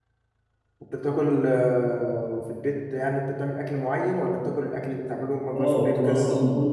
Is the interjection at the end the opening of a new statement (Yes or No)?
Yes